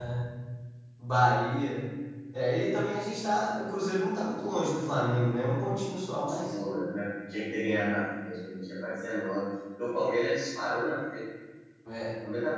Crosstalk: none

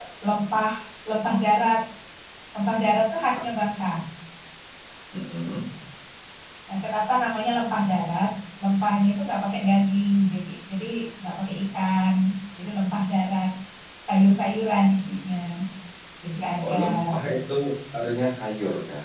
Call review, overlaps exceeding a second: none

